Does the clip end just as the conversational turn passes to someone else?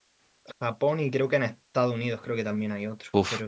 Yes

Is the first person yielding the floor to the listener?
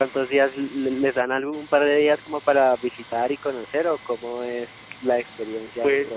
Yes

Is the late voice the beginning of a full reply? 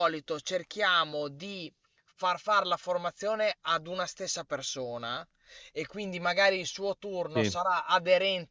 No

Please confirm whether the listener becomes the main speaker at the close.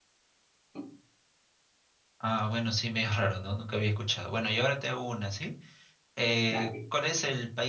No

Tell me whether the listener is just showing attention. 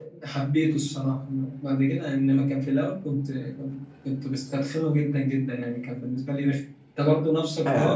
No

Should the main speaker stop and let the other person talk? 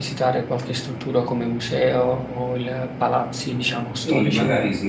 Yes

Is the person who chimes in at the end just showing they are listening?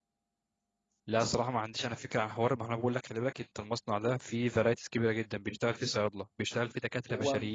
Yes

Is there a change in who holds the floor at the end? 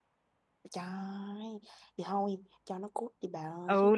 Yes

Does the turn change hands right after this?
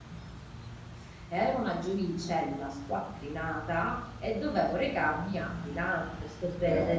No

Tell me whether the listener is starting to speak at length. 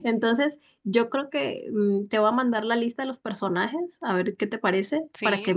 No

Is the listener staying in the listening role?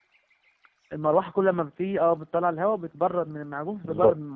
No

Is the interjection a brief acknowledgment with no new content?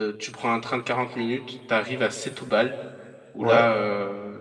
Yes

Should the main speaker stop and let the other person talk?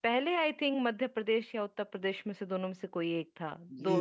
Yes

